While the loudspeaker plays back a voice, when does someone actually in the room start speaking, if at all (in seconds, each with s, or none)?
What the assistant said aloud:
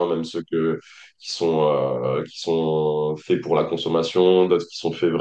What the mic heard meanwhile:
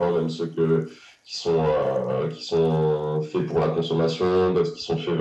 none